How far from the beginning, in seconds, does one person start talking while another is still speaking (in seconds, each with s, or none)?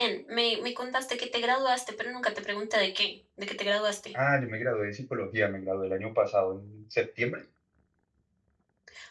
none